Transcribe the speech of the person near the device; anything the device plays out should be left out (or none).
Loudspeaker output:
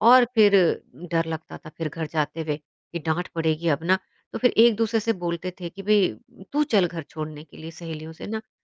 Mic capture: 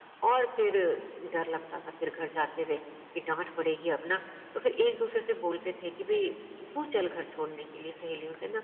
none